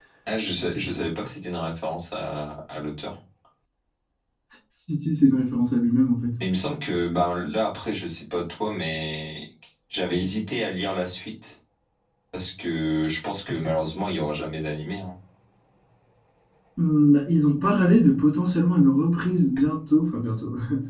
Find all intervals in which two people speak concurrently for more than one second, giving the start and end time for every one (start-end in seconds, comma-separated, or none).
none